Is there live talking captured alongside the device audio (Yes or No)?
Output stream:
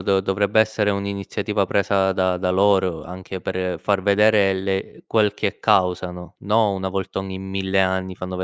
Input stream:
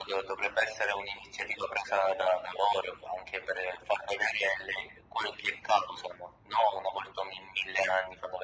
No